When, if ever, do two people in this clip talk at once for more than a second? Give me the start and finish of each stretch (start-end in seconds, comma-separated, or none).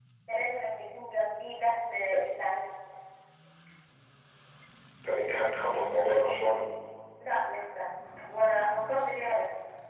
none